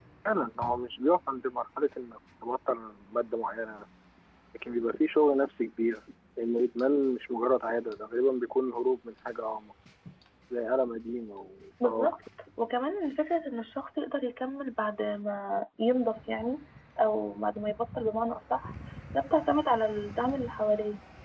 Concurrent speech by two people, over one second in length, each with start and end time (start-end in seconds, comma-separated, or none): none